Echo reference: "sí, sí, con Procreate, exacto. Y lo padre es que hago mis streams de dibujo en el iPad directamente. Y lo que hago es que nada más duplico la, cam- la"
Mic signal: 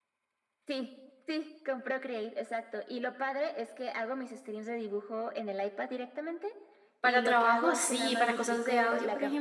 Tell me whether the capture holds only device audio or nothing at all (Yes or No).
No